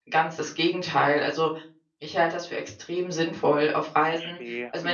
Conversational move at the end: listening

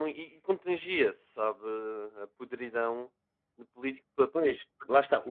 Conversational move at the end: taking over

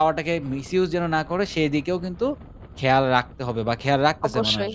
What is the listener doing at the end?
taking over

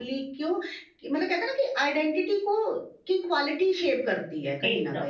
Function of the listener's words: taking over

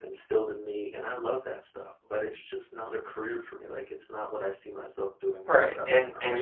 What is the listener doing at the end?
taking over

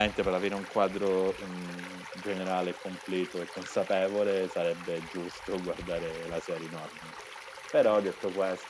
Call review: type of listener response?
listening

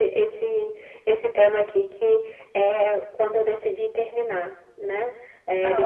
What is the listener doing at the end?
listening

